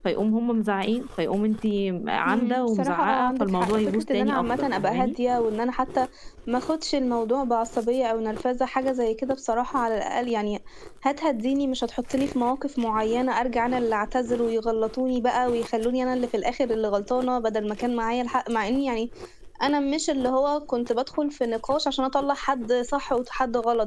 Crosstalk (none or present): present